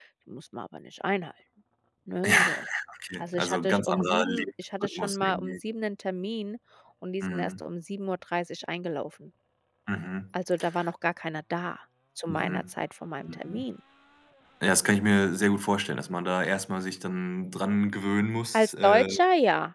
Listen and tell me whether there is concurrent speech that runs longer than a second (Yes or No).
Yes